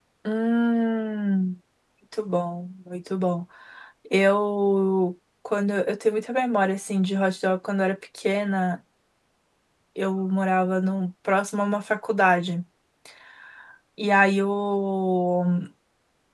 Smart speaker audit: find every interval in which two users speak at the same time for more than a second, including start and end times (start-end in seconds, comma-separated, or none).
none